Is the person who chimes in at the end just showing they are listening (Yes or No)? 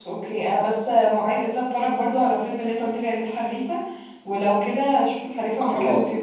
No